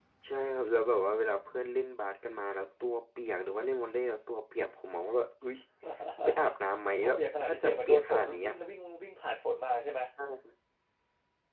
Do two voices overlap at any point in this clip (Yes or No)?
Yes